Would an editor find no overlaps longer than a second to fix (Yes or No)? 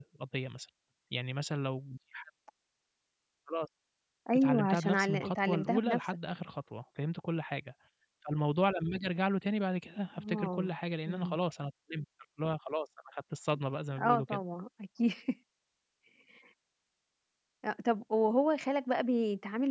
No